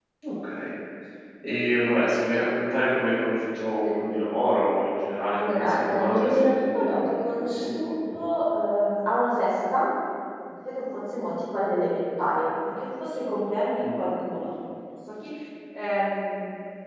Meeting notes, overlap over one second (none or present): present